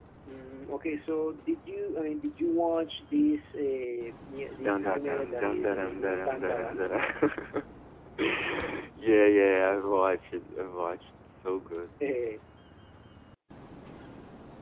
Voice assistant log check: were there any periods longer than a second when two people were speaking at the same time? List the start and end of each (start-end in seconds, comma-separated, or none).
4.6-6.6